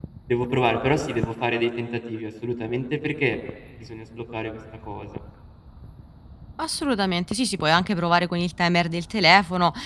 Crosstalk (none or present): none